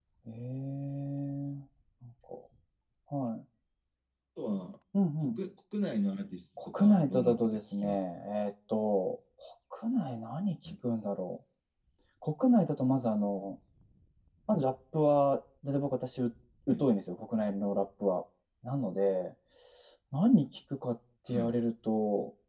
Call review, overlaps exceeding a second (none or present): present